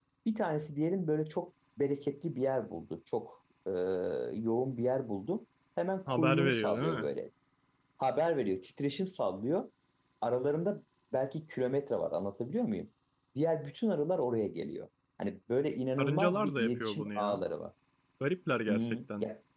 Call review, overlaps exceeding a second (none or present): present